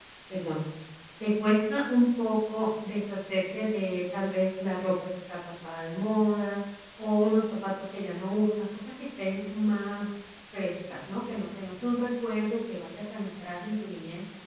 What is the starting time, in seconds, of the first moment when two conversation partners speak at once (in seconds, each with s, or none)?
none